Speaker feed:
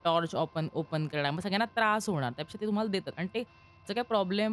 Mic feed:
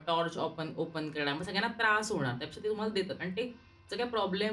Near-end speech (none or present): none